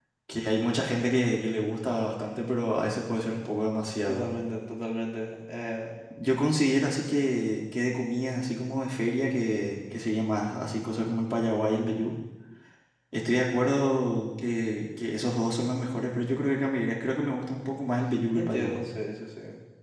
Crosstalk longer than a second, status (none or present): none